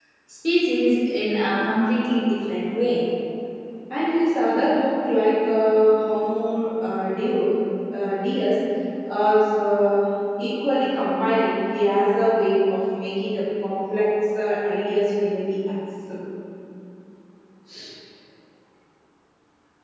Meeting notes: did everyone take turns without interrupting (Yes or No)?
Yes